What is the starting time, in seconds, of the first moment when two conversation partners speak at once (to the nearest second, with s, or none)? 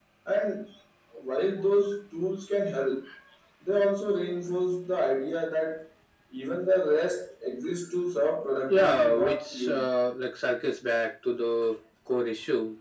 9 s